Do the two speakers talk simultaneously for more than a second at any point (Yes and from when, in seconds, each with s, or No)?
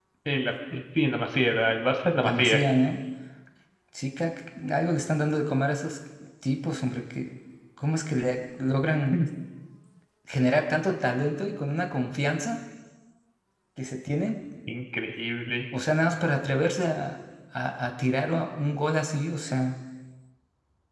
No